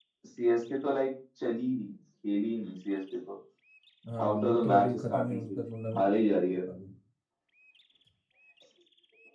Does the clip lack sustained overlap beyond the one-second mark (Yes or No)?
No